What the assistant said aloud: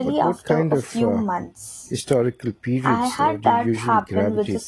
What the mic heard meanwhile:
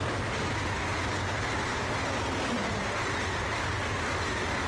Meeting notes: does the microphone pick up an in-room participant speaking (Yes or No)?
No